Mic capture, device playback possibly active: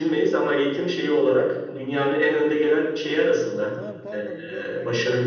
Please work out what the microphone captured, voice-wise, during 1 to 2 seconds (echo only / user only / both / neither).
echo only